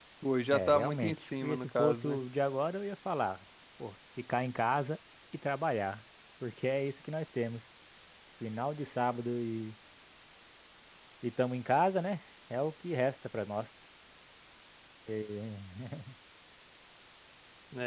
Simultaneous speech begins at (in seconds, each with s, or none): 0.5 s